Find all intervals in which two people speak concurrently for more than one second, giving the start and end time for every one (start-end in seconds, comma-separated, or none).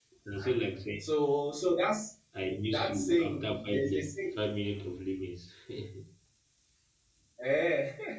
2.6-4.1